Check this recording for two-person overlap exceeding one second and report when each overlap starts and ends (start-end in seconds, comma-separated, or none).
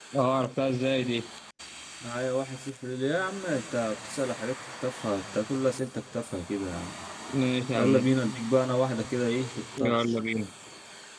none